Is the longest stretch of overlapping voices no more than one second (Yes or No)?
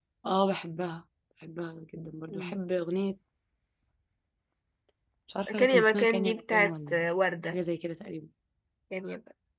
No